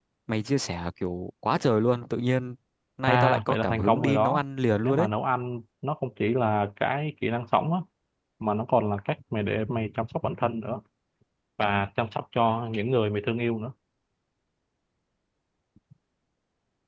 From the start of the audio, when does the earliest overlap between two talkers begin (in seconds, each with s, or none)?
3.1 s